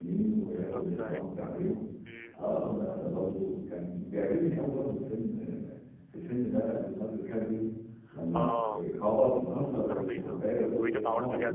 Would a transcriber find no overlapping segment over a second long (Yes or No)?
No